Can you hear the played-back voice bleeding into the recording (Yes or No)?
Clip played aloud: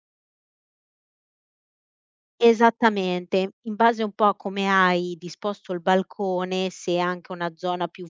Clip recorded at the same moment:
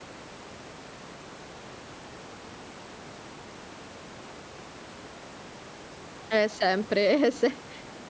No